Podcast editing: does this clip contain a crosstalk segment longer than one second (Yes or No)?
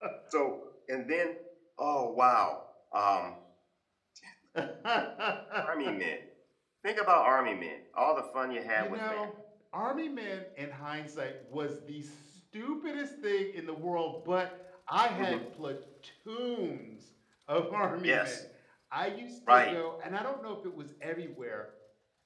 No